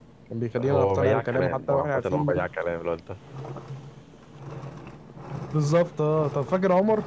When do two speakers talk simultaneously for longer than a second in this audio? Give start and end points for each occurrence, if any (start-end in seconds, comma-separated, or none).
0.6-2.5